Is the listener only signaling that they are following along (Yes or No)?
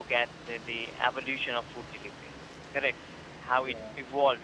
Yes